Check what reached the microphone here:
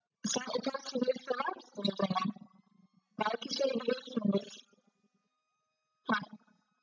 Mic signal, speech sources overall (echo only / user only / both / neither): echo only